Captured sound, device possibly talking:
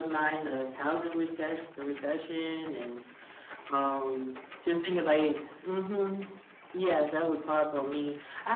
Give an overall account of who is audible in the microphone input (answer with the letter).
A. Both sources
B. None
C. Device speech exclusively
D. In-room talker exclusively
C